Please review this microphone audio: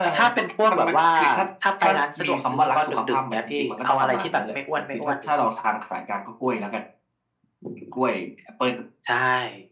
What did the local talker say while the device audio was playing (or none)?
none